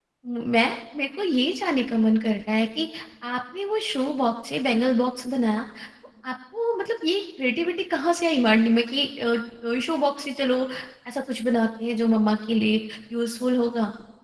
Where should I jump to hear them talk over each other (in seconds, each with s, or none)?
none